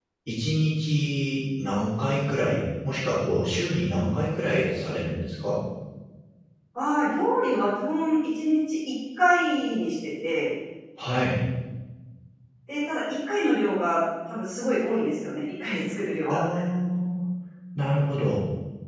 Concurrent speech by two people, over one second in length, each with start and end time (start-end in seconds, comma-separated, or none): none